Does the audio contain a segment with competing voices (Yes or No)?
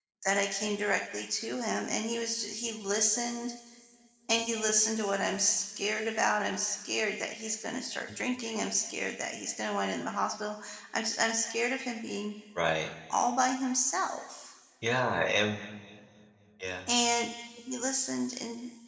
No